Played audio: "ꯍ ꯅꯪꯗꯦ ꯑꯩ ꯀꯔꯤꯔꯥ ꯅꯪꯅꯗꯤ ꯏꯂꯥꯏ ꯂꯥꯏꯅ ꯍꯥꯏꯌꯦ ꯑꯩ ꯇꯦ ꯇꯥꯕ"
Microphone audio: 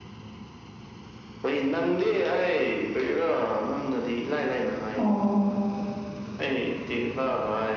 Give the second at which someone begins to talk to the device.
5.0 s

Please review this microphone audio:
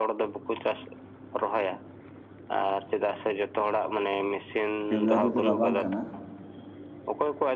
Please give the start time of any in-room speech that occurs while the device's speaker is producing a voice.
4.9 s

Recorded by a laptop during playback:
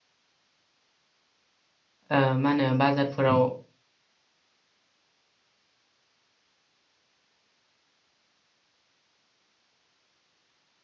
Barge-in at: 2.2 s

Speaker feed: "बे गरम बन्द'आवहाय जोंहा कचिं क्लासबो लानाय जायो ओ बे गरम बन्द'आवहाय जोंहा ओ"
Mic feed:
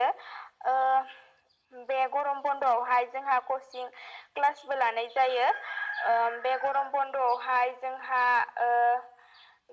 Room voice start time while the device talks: none

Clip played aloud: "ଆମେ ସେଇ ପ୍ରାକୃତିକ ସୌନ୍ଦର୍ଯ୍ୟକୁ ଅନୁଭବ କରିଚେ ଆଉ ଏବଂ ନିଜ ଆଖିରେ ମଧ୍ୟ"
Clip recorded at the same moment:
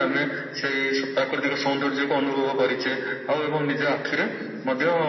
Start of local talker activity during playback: none

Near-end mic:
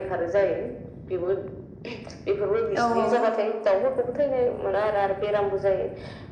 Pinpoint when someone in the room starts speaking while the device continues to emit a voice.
2.8 s

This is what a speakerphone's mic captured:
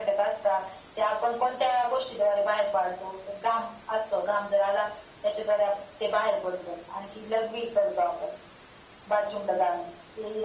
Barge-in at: none

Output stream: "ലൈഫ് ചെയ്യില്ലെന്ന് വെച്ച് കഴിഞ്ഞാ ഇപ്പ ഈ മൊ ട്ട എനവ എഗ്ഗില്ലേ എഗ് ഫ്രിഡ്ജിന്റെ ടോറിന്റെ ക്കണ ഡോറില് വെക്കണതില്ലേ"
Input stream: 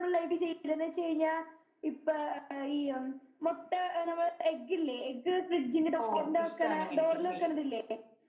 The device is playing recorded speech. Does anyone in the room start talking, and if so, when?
6.0 s

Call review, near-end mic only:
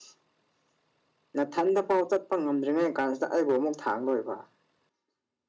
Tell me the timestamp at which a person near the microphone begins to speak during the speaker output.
none

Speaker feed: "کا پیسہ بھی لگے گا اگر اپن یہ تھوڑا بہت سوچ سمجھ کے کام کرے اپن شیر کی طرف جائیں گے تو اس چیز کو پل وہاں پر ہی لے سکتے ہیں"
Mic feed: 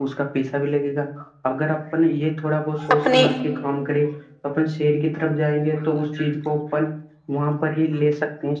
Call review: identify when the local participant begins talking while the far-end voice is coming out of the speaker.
2.9 s

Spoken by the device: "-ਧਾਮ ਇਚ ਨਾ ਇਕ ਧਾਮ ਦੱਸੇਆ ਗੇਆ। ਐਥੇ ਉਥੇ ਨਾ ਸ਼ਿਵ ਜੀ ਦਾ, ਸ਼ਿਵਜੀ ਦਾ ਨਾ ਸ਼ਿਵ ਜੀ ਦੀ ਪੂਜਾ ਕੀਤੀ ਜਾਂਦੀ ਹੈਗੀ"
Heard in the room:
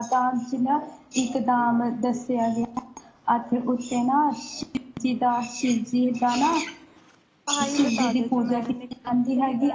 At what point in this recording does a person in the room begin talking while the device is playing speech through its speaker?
7.5 s

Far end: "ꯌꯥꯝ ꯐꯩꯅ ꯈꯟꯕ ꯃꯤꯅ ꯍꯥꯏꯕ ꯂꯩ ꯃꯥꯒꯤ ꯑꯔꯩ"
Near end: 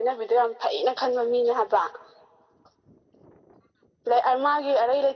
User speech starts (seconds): none

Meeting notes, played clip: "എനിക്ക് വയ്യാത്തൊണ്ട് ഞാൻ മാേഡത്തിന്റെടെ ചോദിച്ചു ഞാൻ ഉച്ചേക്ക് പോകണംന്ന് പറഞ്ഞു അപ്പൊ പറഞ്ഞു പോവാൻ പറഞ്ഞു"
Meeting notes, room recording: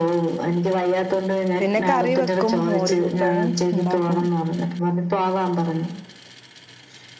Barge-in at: 1.6 s

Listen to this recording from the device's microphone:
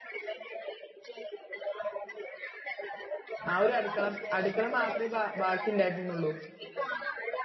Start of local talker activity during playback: 3.5 s

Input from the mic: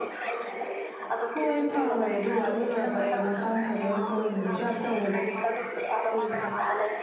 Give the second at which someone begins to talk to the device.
1.3 s

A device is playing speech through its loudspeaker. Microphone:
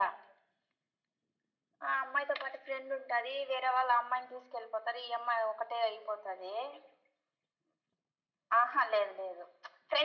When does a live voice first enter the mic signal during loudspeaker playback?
none

